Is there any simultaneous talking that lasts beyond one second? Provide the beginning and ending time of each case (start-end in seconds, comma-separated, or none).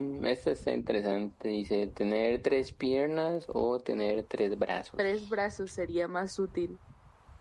none